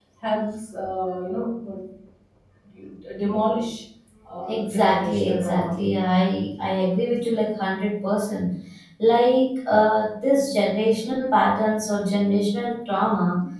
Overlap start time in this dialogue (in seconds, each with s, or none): 4.5 s